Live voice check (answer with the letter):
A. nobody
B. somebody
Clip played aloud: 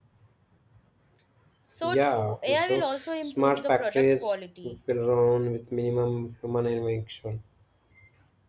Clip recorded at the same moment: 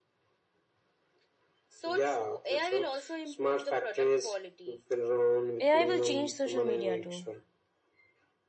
B